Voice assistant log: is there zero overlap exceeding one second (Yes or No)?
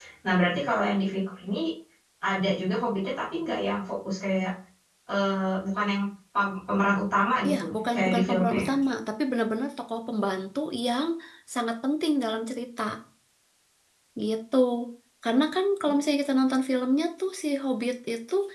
No